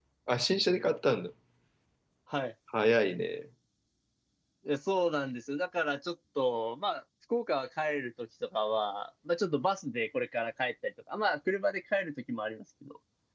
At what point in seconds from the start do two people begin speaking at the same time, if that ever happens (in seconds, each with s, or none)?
none